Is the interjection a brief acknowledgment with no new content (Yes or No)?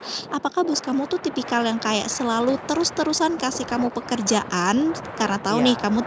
Yes